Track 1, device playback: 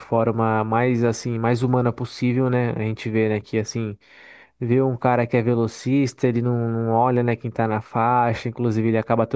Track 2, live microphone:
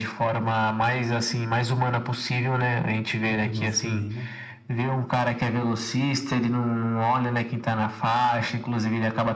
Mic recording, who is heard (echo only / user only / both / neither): both